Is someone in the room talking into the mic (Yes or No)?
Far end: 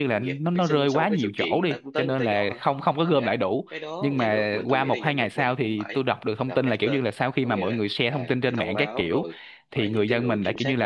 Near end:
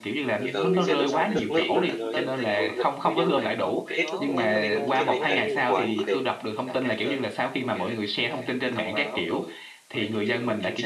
Yes